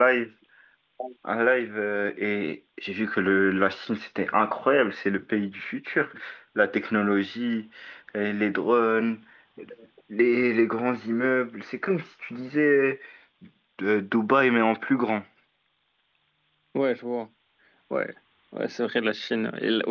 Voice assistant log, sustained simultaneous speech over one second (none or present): none